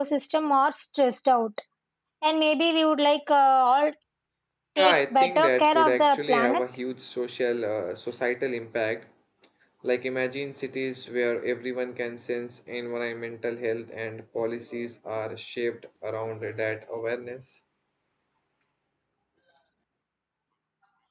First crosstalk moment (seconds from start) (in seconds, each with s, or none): 4.8 s